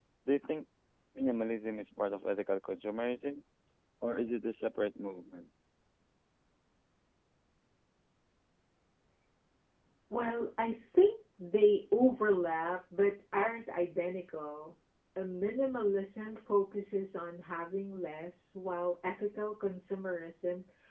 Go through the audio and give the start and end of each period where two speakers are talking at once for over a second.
none

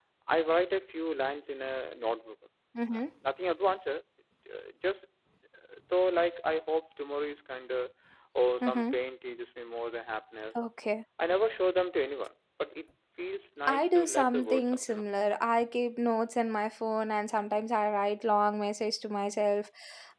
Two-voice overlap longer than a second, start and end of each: 13.7-15.1

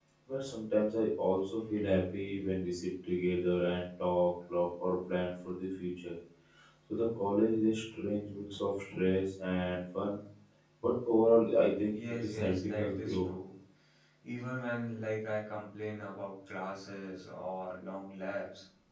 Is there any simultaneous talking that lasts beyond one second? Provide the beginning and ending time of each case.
11.9-13.3

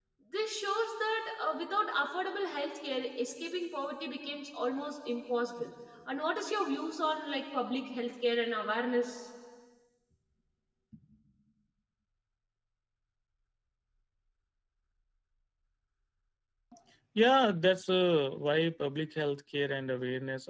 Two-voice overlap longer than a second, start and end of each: none

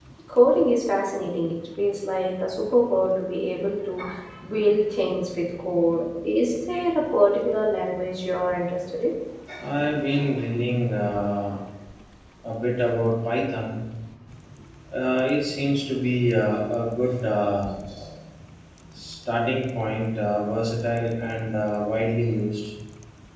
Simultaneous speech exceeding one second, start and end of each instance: none

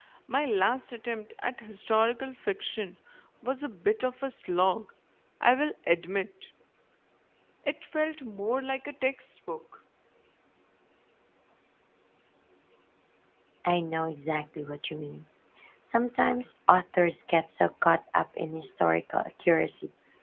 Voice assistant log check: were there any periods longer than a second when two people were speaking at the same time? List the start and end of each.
none

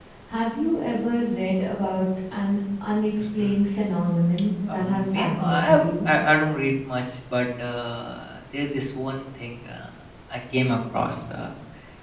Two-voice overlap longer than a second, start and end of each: 4.7-6.1

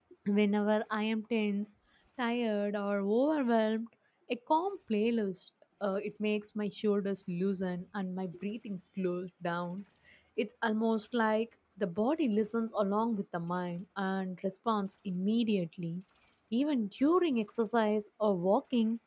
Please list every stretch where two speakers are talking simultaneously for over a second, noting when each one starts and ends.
none

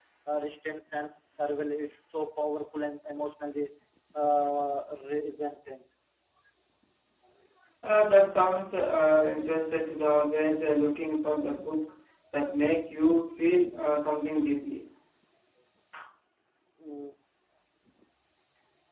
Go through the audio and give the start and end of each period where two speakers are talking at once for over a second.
none

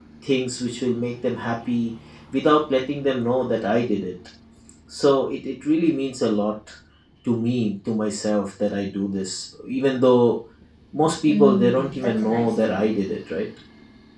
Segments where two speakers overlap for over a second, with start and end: 11.3-12.8

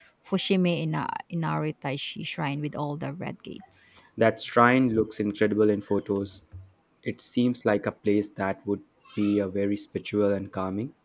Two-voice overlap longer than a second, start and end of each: none

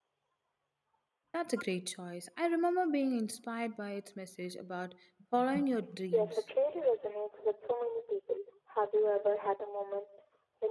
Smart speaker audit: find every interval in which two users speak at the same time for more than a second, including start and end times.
none

